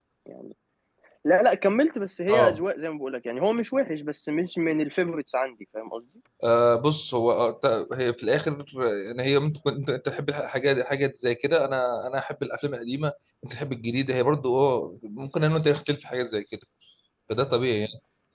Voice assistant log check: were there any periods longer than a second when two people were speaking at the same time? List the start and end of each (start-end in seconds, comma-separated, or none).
none